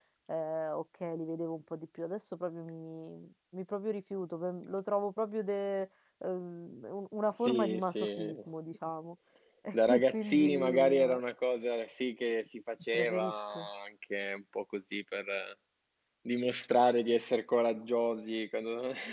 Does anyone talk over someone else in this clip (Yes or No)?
Yes